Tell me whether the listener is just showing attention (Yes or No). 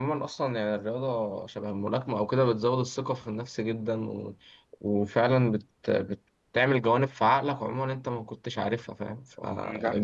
Yes